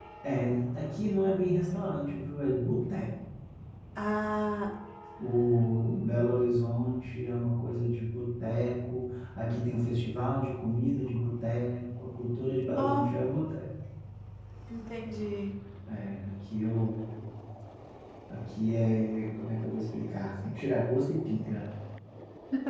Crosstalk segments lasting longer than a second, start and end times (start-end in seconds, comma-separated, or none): none